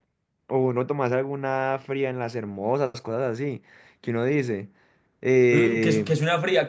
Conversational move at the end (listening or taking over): taking over